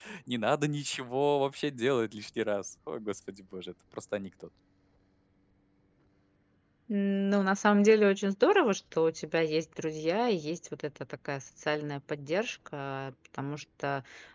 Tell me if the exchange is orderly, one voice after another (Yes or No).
Yes